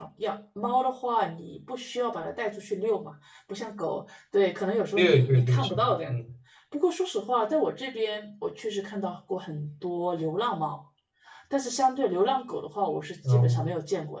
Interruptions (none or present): present